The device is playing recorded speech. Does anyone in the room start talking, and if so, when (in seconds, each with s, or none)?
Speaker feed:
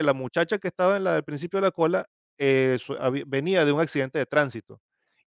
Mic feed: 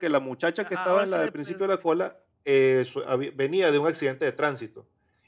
0.6 s